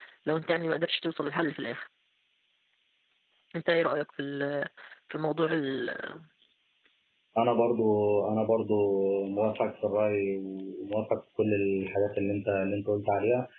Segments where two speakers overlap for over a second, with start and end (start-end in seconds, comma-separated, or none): none